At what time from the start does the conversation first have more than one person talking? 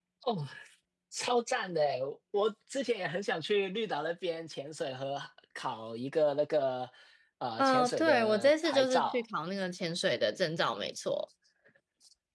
7.6 s

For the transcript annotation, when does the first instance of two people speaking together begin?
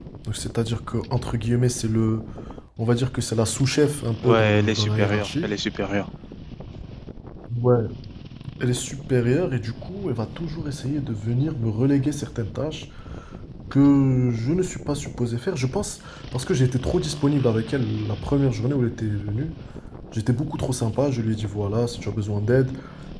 4.2 s

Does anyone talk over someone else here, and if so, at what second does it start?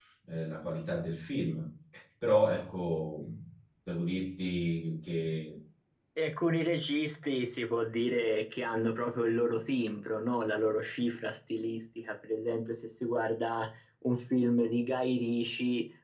none

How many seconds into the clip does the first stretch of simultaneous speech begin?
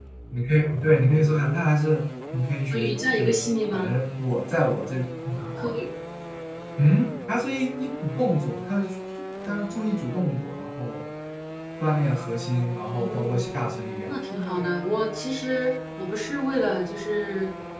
2.7 s

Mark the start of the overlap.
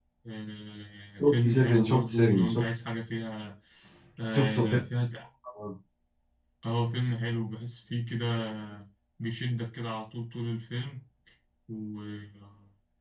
1.3 s

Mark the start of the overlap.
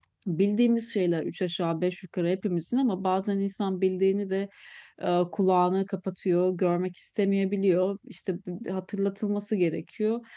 none

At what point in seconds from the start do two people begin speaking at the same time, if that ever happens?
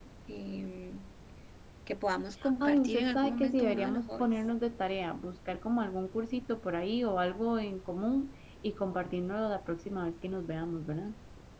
2.6 s

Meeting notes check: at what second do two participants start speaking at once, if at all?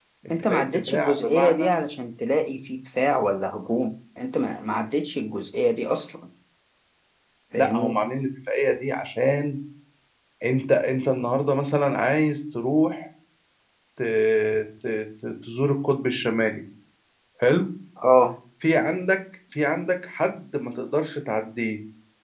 0.5 s

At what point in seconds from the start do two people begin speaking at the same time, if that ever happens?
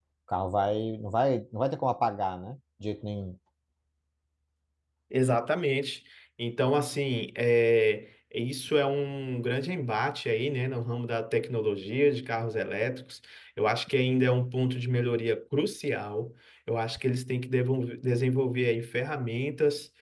none

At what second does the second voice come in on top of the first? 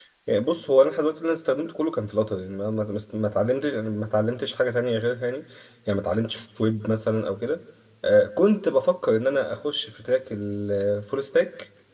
none

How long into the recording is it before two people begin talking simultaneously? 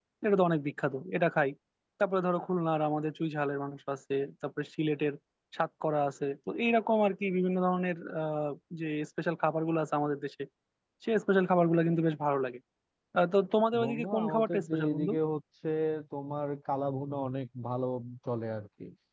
13.8 s

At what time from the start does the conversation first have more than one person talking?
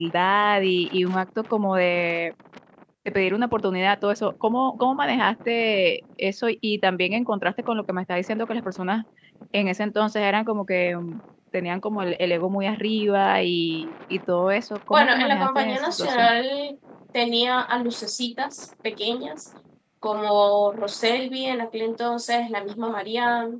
14.9 s

